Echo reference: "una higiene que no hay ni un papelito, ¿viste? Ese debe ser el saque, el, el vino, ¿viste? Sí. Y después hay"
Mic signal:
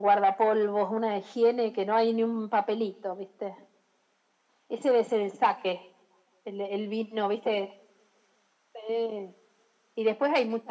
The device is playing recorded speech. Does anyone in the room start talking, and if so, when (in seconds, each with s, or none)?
none